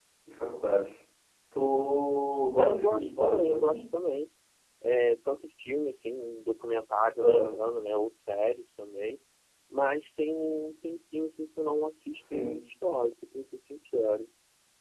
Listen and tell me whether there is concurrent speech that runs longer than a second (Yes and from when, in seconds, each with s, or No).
Yes, from 2.6 s